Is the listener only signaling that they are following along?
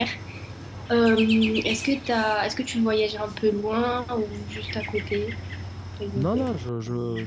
No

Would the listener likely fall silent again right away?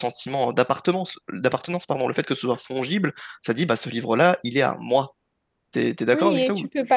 No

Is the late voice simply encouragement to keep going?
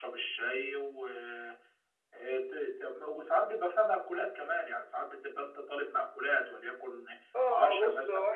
No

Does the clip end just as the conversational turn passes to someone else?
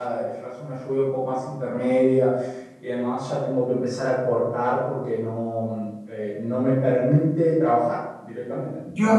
Yes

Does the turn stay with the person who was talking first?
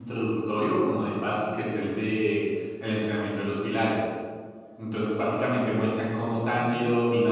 Yes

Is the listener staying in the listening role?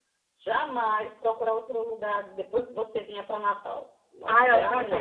No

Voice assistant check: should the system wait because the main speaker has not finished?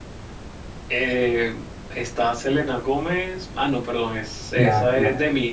No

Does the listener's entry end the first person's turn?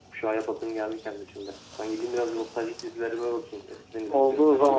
Yes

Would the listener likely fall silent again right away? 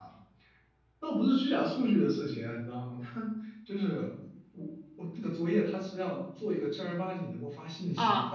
Yes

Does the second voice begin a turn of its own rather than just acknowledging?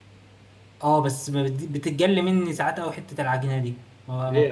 Yes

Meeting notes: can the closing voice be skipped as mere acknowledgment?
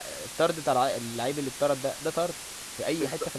No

